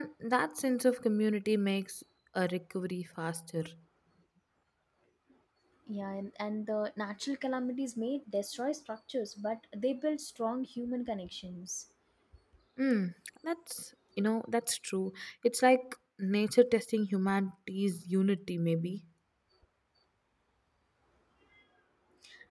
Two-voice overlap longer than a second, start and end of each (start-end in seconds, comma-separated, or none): none